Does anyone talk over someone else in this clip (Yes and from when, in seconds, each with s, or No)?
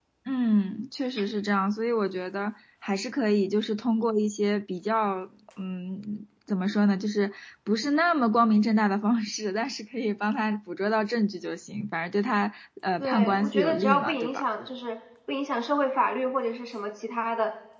Yes, from 13.0 s